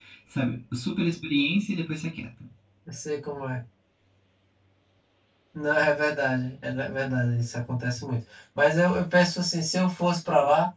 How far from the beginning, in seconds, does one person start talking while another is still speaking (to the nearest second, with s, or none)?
none